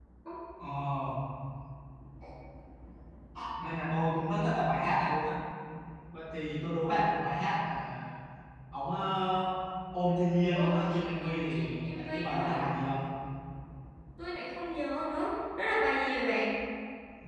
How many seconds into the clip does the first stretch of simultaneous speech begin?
11 s

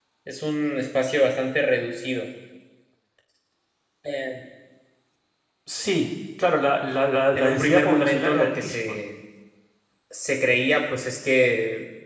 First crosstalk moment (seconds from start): 7 s

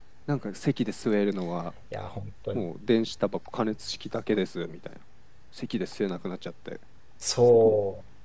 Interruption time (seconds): none

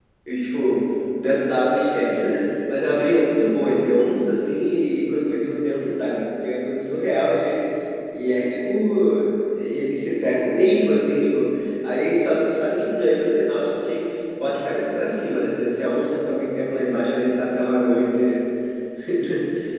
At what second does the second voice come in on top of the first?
none

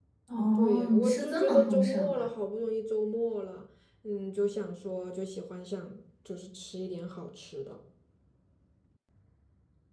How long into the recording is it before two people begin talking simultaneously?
1 s

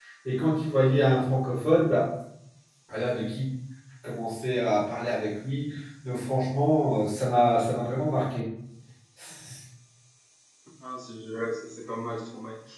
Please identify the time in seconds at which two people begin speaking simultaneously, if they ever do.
none

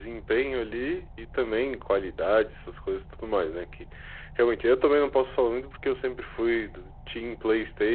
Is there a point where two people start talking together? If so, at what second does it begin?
none

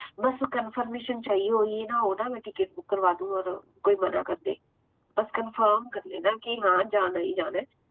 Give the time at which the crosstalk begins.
none

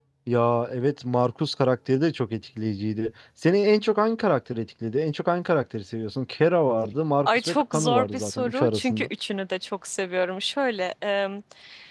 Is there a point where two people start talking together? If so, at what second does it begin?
7 s

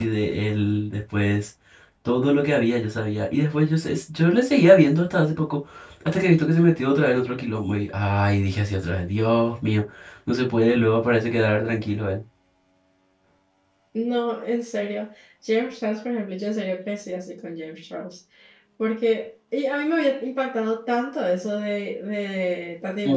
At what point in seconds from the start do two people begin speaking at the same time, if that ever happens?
none

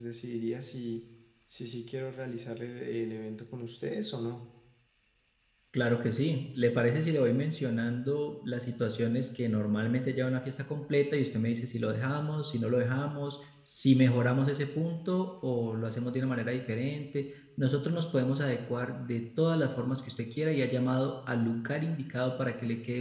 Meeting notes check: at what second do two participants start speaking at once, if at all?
none

